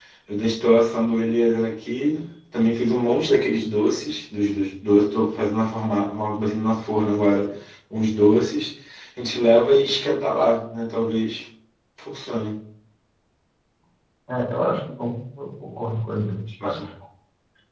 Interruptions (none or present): none